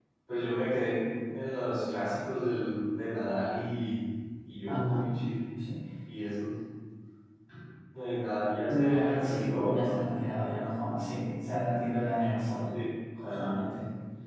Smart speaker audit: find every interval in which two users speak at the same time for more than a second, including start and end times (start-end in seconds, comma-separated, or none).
8.7-10.0